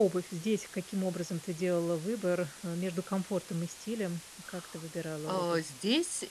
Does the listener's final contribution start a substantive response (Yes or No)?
Yes